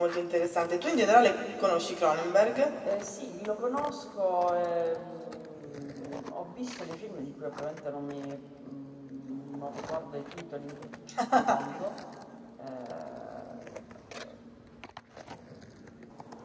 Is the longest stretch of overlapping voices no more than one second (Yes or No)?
Yes